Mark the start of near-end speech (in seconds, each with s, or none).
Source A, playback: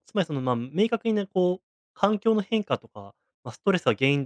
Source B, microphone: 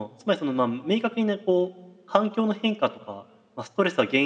none